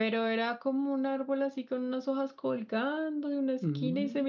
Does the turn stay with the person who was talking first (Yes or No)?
Yes